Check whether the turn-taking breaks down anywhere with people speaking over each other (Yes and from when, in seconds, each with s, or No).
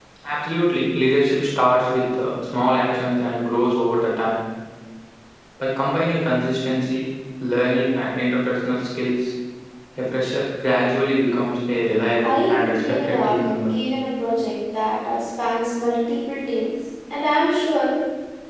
Yes, from 12.2 s